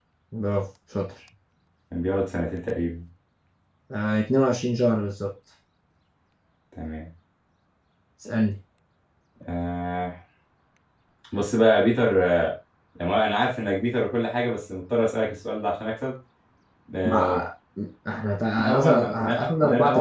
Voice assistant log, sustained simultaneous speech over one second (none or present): present